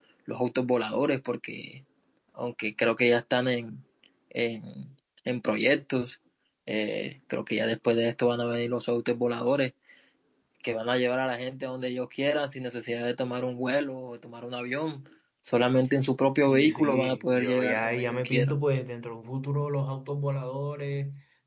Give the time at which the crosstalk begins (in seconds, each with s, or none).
16.5 s